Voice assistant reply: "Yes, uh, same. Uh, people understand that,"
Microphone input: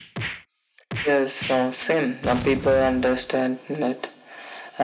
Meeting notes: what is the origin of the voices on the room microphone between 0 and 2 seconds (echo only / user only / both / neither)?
echo only